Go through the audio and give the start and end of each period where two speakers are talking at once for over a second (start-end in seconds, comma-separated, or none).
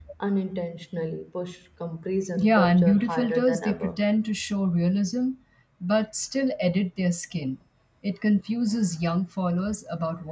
2.4-4.0